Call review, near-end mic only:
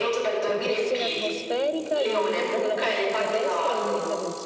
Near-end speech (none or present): present